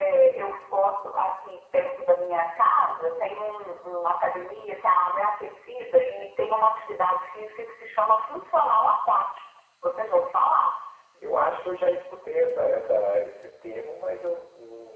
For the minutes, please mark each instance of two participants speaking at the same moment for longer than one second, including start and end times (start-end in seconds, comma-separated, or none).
none